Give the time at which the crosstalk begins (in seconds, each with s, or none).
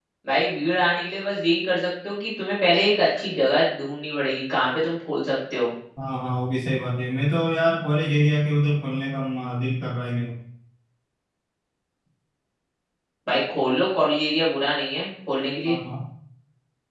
none